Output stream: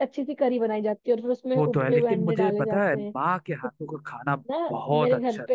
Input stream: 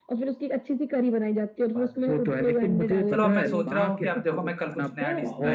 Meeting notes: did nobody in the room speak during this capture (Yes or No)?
No